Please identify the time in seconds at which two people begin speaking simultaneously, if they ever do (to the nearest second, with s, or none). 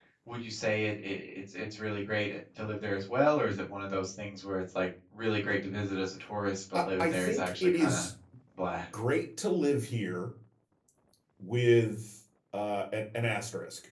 7 s